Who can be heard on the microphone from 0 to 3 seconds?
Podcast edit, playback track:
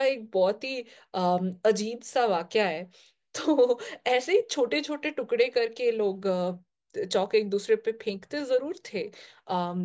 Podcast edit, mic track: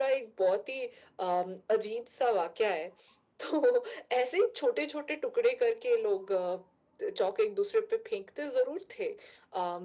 echo only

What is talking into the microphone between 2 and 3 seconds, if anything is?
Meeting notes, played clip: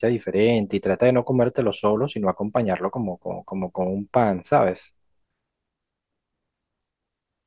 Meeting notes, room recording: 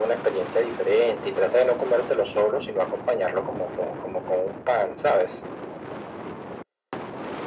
echo only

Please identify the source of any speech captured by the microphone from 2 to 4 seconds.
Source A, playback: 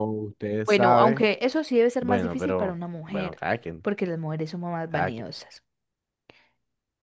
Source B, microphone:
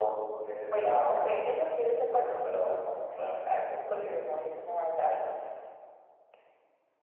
echo only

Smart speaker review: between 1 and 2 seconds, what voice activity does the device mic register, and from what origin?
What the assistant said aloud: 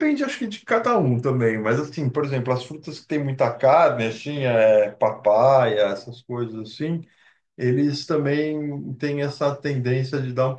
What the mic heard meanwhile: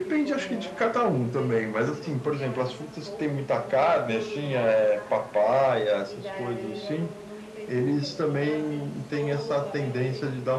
both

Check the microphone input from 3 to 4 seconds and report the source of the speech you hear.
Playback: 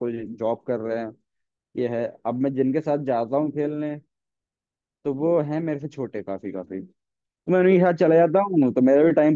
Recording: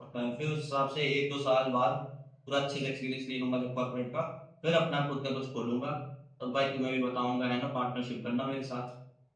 user only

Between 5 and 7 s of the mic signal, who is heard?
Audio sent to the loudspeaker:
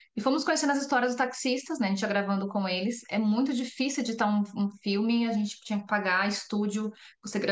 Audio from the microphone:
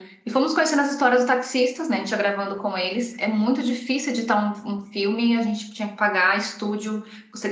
echo only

